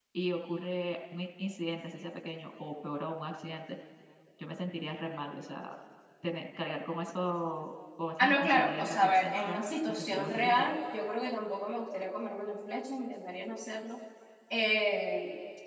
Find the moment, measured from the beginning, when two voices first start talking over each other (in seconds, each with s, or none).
8.2 s